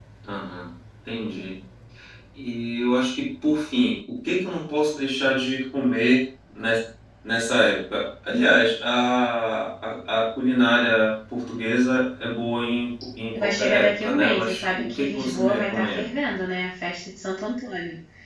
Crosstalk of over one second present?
Yes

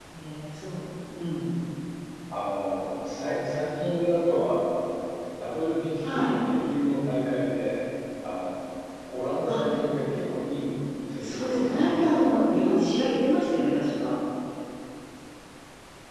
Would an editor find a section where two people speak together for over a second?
Yes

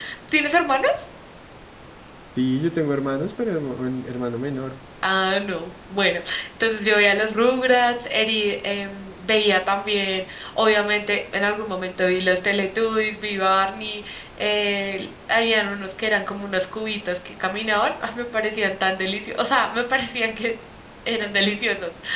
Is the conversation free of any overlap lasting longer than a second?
Yes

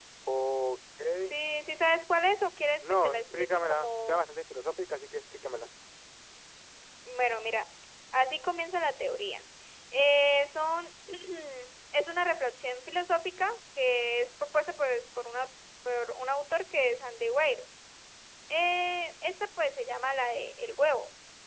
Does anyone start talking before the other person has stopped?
Yes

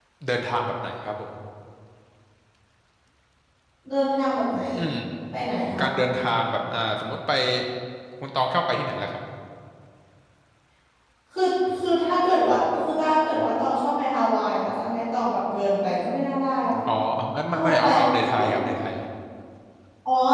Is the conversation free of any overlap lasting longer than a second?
No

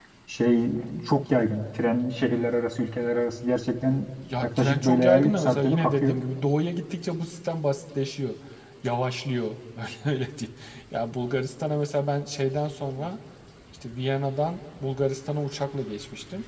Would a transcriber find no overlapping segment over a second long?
No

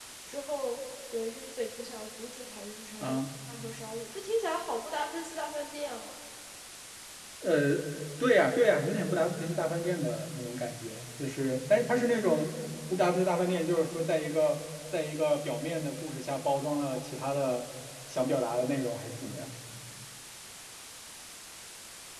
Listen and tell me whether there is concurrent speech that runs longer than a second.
No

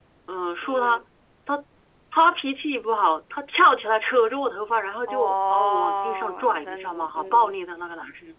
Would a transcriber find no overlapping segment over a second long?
No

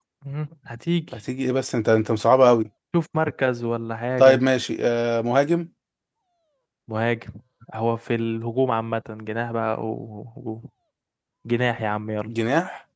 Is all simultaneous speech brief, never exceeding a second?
Yes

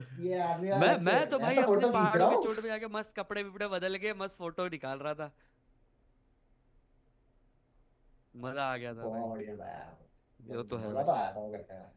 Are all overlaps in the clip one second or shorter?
No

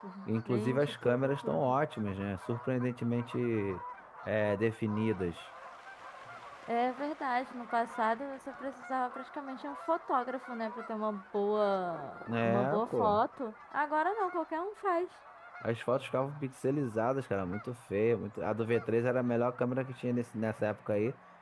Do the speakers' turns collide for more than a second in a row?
Yes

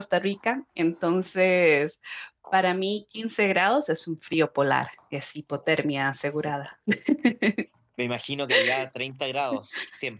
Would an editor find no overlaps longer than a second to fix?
Yes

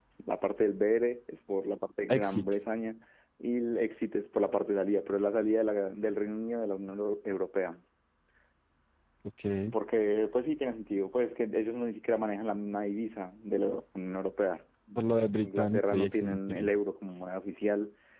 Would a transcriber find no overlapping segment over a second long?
No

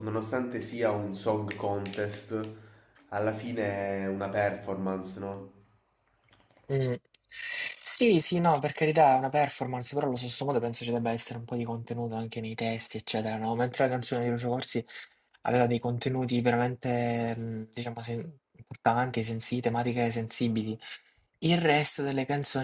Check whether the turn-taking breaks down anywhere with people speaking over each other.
No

